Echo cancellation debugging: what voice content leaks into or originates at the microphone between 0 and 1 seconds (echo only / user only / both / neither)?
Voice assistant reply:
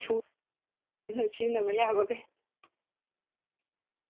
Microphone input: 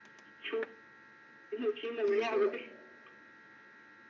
echo only